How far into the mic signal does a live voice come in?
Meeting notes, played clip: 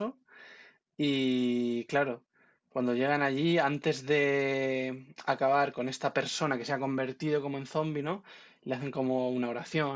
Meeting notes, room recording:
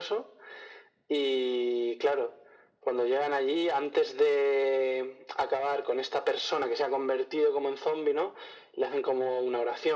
none

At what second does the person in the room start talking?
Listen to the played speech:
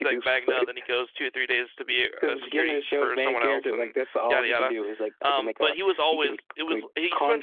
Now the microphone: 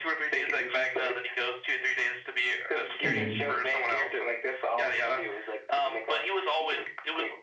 3.0 s

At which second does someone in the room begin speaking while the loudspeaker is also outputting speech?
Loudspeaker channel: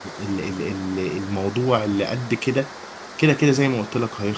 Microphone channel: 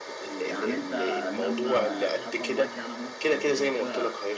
0.4 s

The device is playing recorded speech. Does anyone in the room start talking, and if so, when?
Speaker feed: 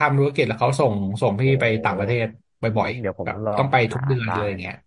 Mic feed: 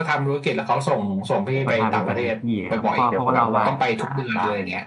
1.6 s

